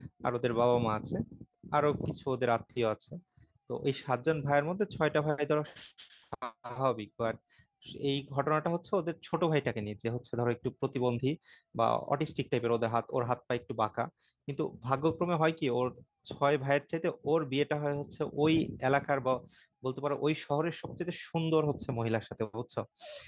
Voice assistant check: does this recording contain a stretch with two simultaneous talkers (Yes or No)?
No